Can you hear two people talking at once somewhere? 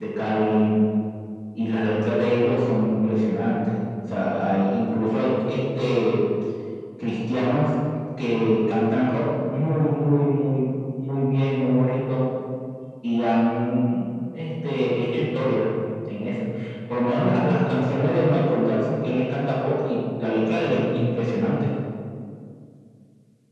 No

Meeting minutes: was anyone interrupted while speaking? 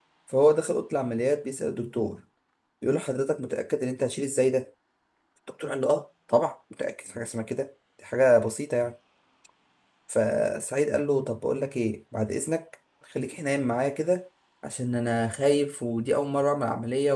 No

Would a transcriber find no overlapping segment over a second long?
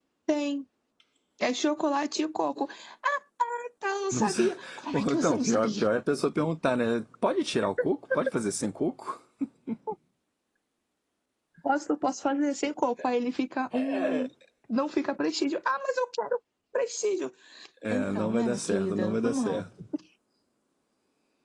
No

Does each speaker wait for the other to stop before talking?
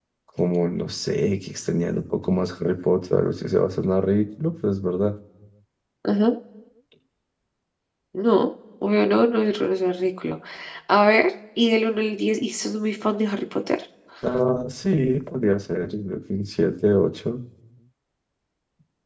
Yes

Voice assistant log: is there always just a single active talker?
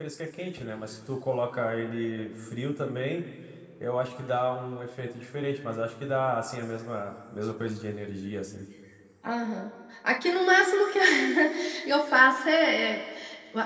Yes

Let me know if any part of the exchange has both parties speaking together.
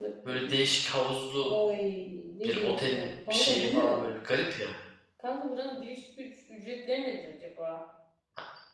Yes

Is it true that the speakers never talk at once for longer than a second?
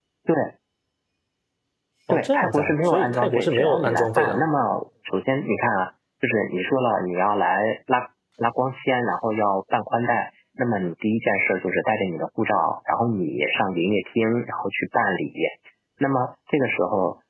No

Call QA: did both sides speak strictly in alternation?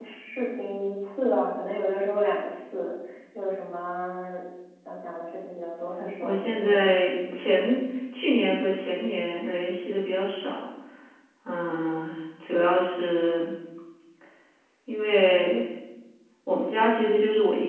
No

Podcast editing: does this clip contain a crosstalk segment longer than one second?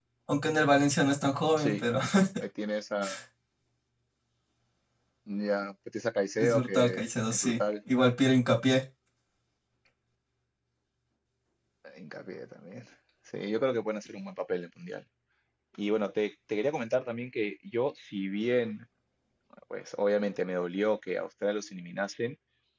Yes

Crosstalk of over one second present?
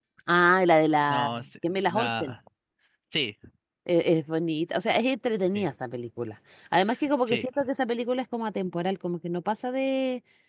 Yes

